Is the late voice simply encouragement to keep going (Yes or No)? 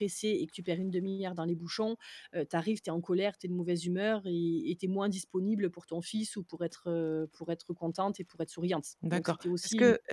No